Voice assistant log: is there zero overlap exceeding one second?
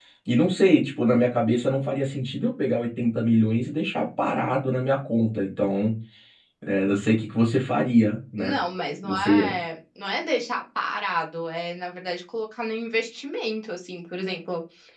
Yes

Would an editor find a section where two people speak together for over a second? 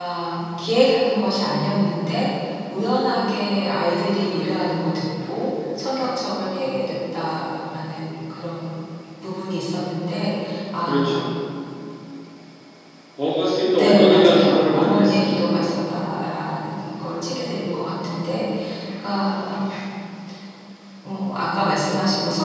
Yes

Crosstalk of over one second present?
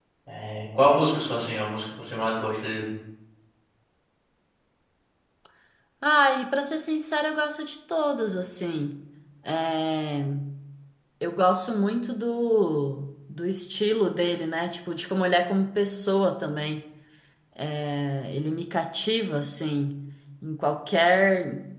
No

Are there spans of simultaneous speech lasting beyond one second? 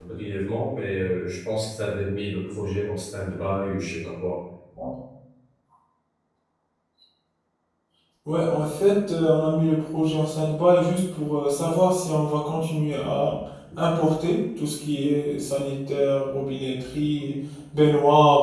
No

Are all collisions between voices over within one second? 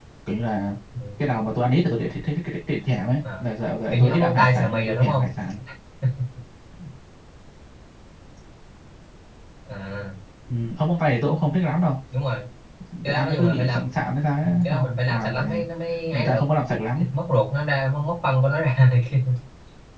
No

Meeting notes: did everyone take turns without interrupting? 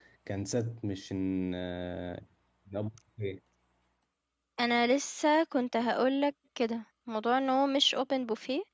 Yes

